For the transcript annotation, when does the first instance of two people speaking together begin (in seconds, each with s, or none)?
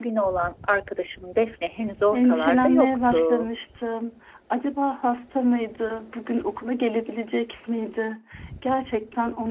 2.1 s